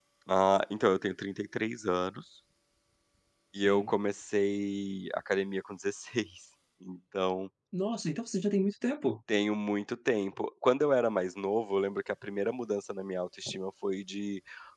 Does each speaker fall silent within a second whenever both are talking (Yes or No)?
Yes